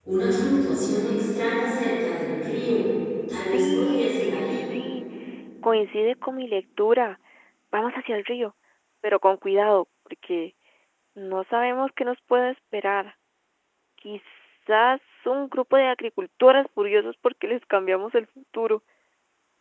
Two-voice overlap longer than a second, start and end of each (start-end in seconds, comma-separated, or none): 3.4-4.6